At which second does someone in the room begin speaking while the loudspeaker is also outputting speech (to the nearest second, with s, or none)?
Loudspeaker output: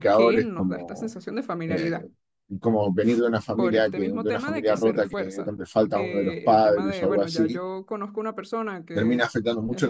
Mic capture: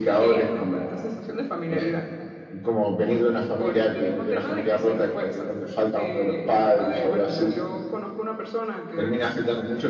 none